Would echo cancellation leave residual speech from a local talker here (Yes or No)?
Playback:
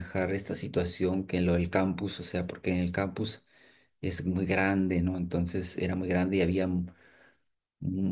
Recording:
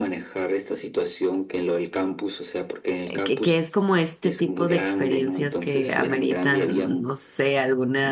Yes